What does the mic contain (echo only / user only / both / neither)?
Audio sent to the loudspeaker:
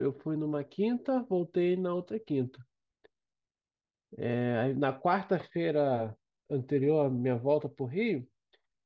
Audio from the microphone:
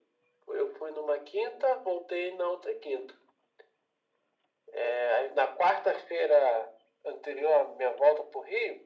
echo only